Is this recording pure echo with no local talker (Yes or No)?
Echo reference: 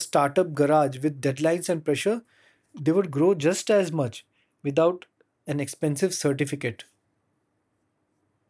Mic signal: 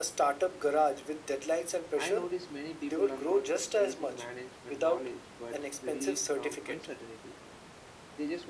No